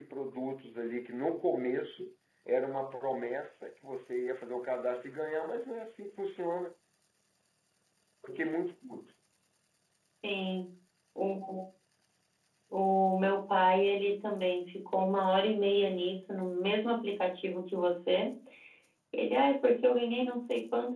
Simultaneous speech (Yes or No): No